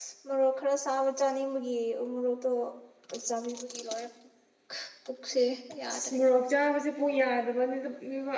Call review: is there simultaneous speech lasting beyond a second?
No

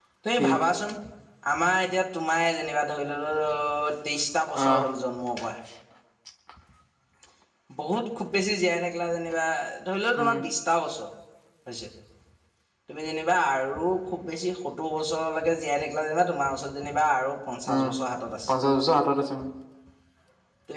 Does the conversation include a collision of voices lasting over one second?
No

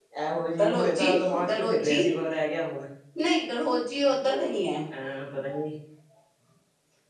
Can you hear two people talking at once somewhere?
Yes, from 0.6 s

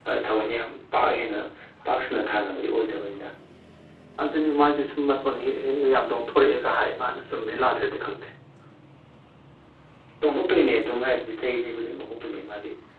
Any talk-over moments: No

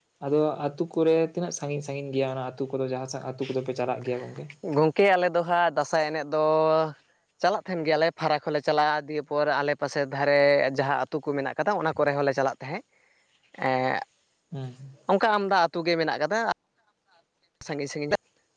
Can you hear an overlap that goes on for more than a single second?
No

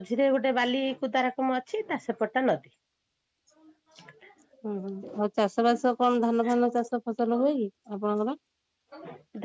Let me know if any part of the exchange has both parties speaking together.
No

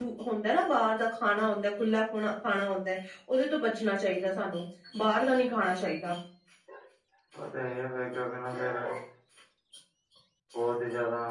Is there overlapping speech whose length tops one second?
No

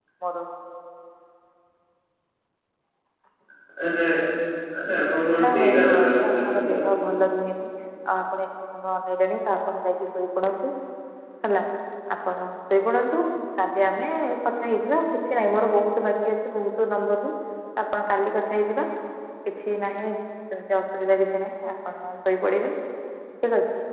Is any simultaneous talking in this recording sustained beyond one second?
Yes, from 5.4 s

